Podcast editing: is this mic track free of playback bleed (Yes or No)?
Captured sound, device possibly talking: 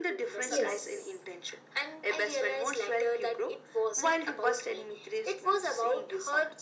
No